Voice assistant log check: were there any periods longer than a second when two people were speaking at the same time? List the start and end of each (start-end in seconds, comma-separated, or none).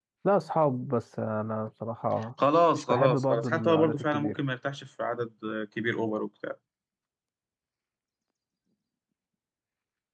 2.8-4.4